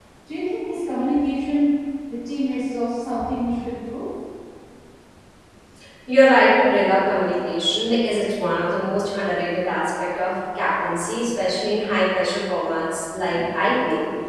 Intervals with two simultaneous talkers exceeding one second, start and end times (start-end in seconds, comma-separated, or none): none